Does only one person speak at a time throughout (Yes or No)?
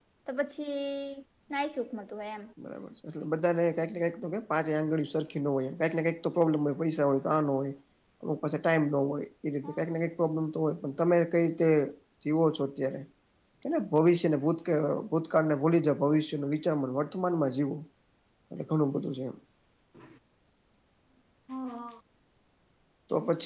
Yes